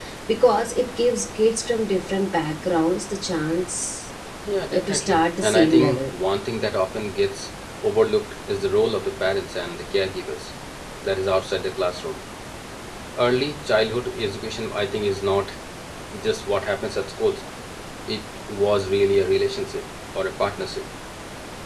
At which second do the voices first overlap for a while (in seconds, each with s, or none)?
4.7 s